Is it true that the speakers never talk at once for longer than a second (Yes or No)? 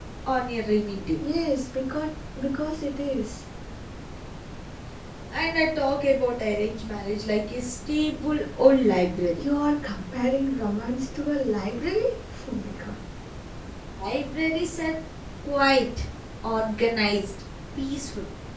Yes